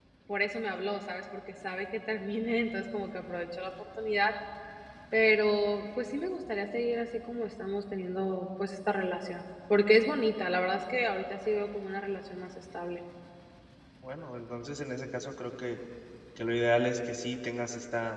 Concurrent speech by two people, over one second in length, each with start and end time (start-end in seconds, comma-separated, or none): none